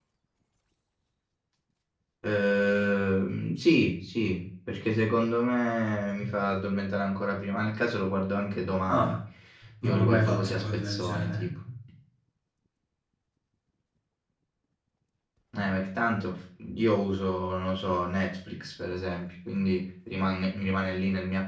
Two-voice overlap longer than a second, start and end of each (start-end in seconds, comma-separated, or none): 9.8-11.5